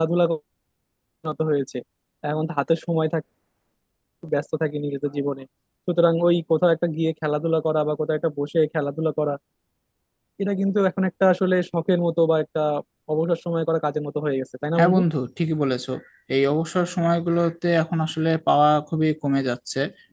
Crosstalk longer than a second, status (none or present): none